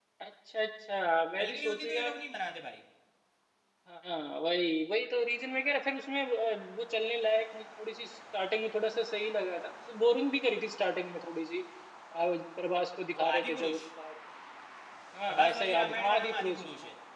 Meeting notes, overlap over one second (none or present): present